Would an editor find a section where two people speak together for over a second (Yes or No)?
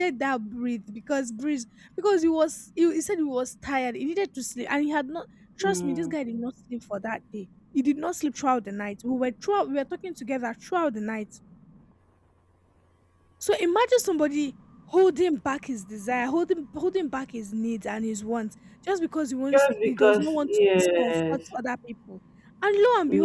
Yes